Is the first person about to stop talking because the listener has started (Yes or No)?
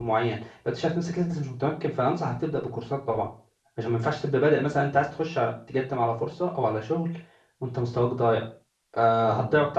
No